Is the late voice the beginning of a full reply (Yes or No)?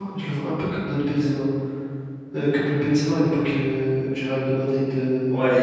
Yes